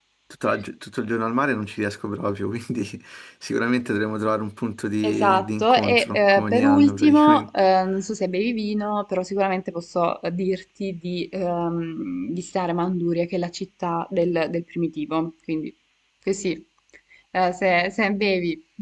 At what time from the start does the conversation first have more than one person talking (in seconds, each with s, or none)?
5.0 s